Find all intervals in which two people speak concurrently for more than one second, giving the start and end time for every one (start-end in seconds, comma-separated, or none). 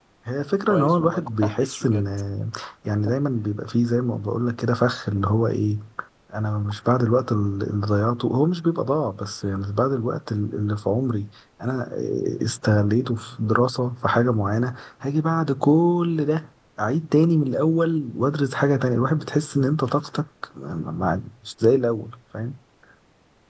0.7-2.0